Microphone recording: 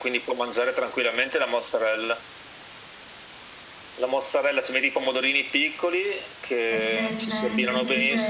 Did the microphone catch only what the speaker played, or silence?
No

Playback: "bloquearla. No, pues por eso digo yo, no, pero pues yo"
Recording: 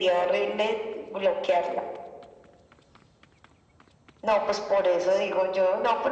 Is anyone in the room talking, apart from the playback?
No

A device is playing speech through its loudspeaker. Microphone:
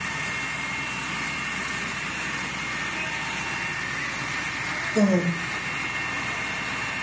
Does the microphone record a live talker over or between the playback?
Yes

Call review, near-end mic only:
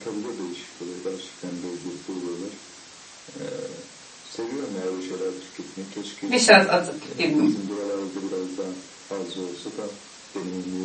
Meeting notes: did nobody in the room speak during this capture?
No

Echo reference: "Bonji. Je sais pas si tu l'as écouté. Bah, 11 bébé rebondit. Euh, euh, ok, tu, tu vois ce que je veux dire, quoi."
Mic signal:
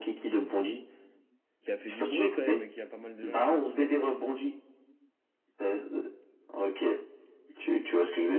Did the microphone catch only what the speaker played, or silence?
No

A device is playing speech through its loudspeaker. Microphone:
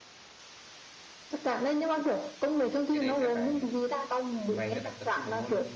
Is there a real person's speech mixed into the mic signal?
Yes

